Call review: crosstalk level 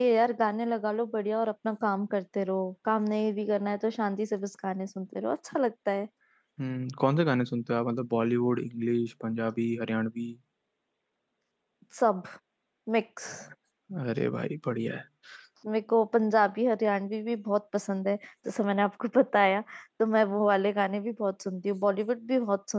none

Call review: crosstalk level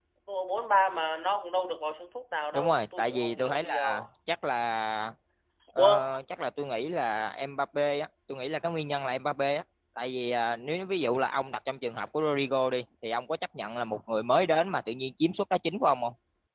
present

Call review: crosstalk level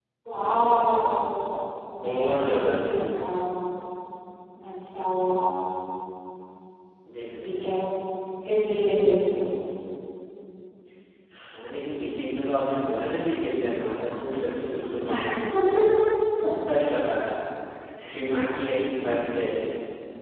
present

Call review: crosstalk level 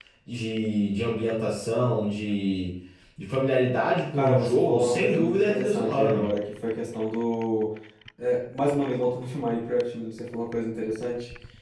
present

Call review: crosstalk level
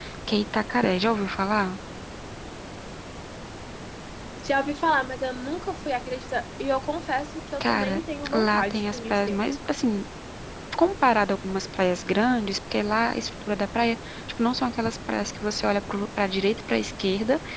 present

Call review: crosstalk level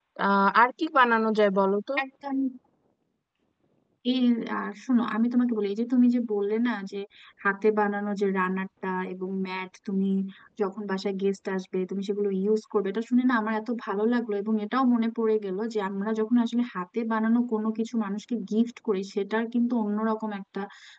none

